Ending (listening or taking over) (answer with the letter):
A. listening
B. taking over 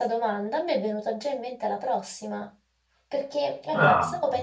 A